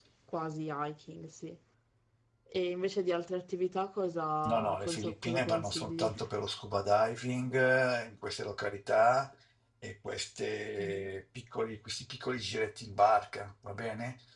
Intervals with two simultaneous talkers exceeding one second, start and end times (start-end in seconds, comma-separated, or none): 4.4-6.1